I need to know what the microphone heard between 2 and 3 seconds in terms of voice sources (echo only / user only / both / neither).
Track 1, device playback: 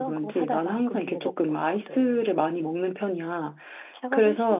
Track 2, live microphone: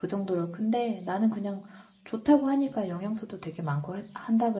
user only